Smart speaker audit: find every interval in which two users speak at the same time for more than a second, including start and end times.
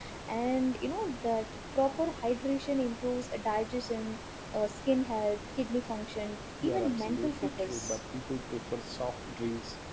6.6-8.0

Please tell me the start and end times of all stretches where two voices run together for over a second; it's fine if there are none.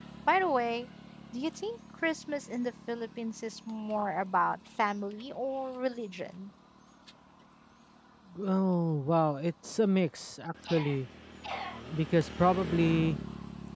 none

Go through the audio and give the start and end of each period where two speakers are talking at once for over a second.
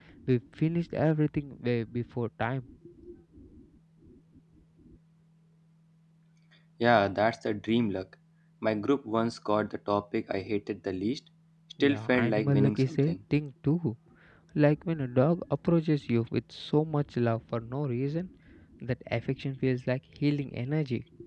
11.8-13.1

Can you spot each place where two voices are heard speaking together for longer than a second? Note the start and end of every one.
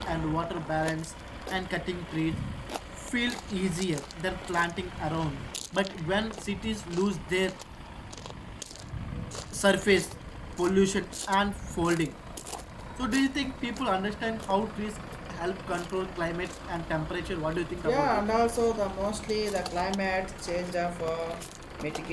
none

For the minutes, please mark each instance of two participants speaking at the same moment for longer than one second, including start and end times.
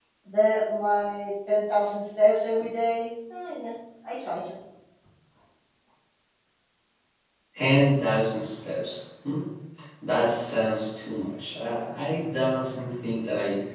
none

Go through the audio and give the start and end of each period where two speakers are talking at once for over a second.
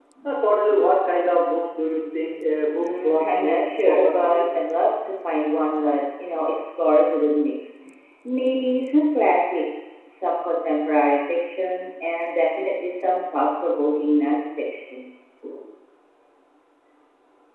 2.8-4.5

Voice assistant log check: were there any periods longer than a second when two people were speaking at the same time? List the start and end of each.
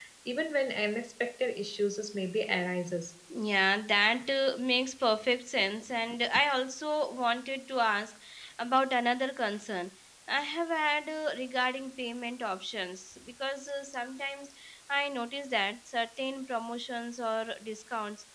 none

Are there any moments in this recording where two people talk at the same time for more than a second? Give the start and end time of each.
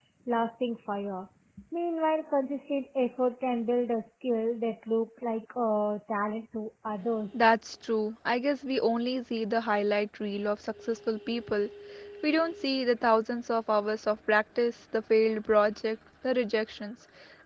none

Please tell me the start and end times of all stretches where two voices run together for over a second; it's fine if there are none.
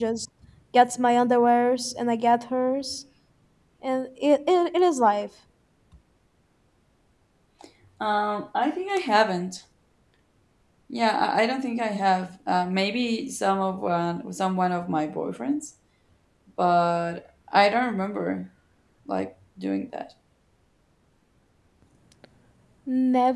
none

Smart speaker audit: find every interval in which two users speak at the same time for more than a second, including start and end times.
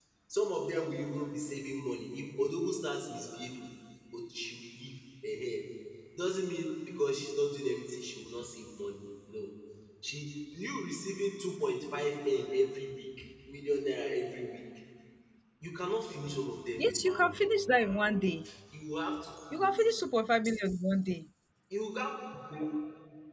16.8-18.3

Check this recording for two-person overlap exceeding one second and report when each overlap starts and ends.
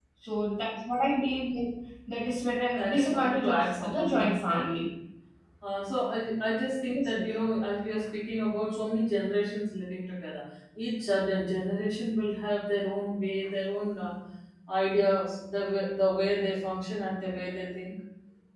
2.8-4.6

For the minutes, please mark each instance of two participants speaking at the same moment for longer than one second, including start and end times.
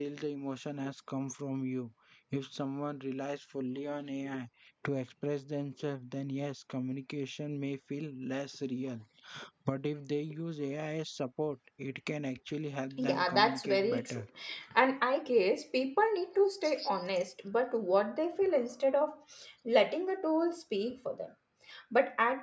13.0-14.2

